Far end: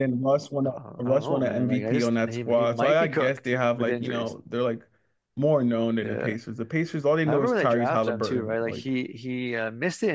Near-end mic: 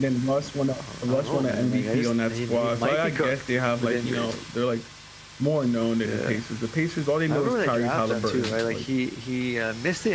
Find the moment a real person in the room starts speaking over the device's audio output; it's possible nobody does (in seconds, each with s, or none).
none